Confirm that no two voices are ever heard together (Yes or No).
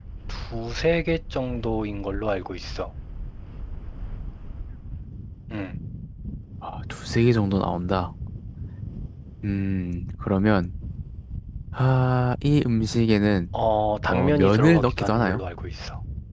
No